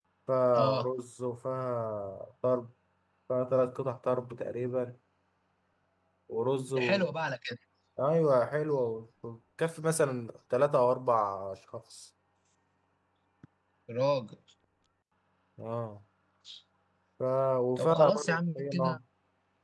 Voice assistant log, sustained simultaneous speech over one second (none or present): present